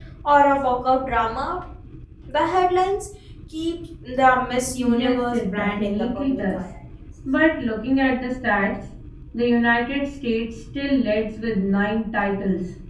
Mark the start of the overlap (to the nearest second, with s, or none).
5 s